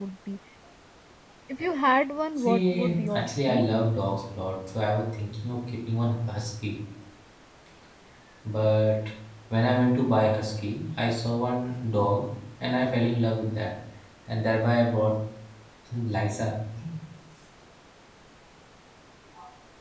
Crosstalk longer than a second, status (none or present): present